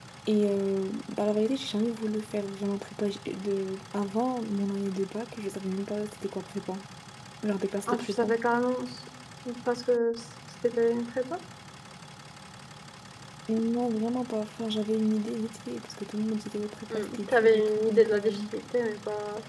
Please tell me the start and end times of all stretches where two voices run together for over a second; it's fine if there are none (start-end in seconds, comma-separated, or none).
16.9-18.4